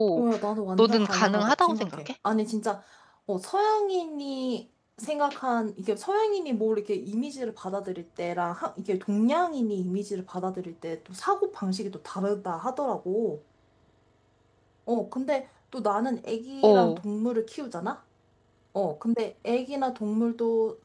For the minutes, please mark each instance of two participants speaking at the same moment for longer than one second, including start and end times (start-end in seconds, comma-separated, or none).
0.8-2.0